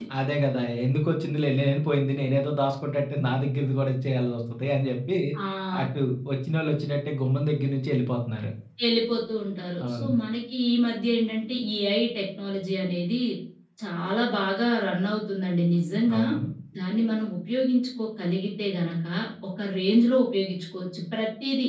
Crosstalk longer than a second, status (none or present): none